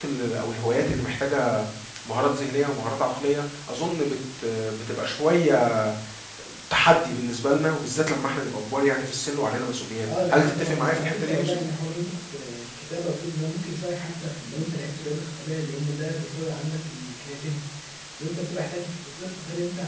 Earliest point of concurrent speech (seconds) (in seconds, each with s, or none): 10.1 s